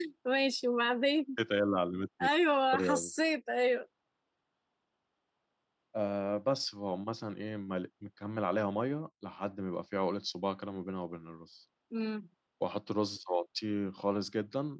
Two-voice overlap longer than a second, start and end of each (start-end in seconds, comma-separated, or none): none